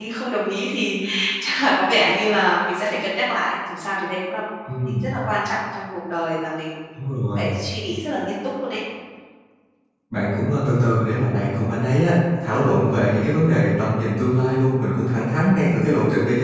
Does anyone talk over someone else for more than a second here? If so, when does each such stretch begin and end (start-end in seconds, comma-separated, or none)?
none